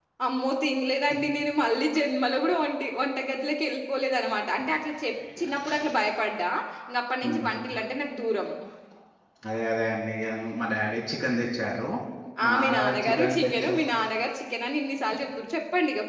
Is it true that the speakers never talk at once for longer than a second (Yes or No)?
No